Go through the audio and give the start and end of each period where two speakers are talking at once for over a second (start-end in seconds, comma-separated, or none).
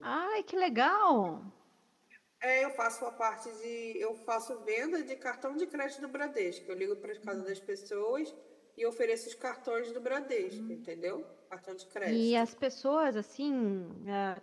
none